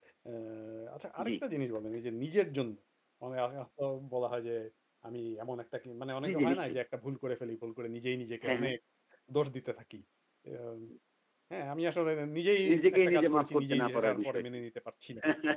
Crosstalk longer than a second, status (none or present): present